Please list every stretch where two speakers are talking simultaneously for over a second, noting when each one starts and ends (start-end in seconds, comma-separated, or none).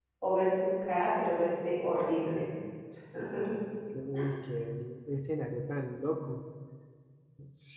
none